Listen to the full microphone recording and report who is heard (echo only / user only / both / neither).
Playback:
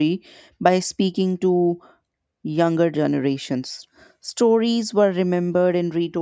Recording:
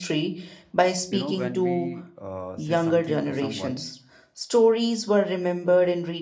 both